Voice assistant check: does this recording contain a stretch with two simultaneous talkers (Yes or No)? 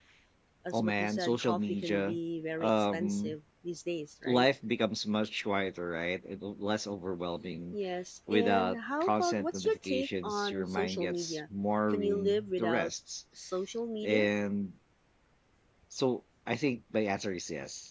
Yes